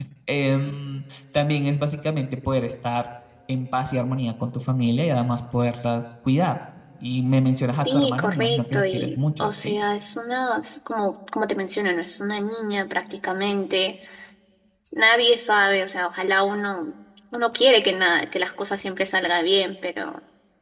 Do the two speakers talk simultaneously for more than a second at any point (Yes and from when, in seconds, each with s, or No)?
Yes, from 7.7 s